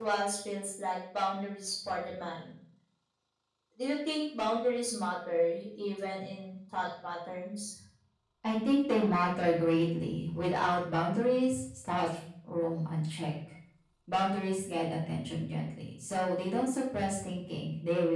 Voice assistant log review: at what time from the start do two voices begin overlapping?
none

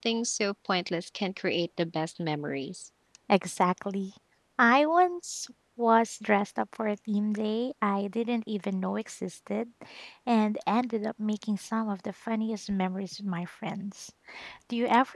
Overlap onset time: none

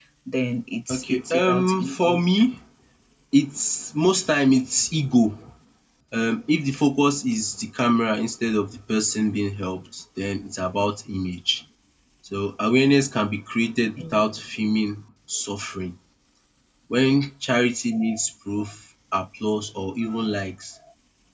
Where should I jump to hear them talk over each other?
1 s

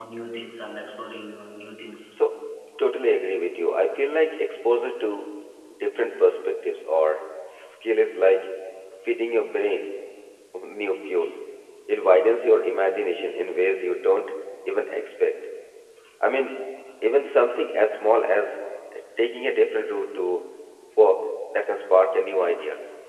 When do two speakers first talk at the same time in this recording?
none

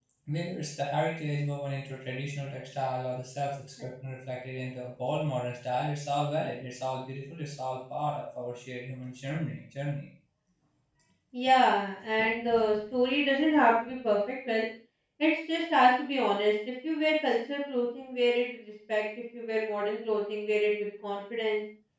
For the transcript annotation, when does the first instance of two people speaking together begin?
none

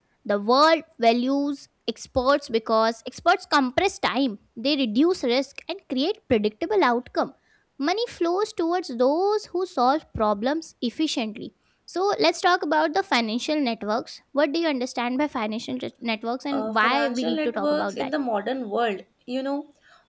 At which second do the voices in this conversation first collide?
17 s

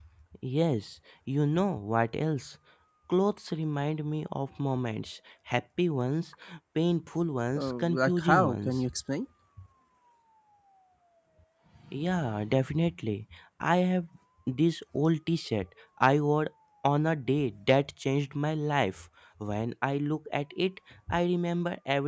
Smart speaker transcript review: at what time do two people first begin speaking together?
8 s

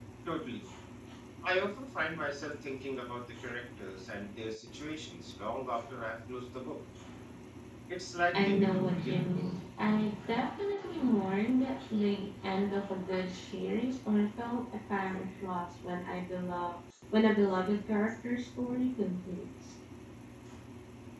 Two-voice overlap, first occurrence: 8 s

